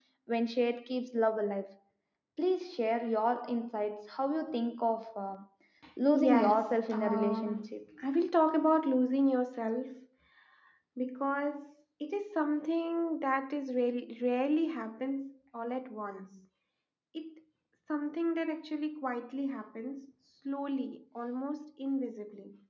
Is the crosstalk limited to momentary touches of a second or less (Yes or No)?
No